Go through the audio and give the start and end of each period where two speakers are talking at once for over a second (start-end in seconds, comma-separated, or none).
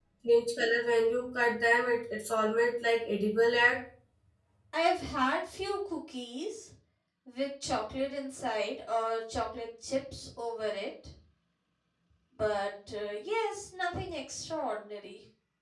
none